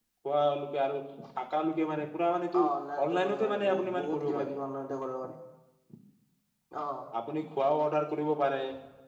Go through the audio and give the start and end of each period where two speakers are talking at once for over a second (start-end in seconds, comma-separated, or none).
3.1-4.6